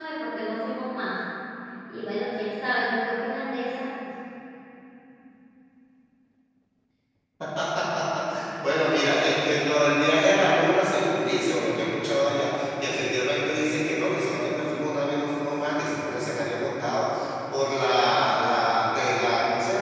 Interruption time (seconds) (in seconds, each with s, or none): none